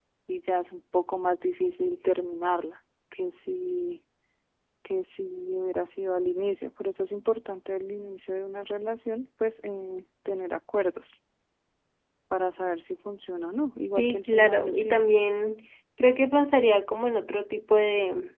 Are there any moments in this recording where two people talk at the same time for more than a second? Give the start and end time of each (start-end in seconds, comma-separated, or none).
14.0-15.2